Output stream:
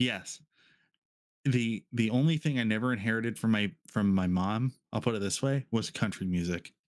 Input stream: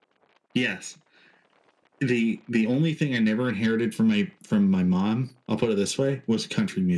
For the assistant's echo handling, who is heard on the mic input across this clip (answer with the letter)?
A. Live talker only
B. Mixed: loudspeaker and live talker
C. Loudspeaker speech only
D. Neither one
C